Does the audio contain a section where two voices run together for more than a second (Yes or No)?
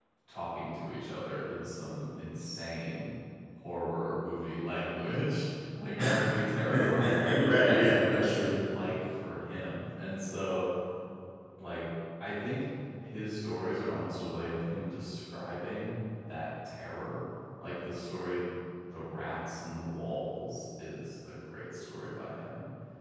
Yes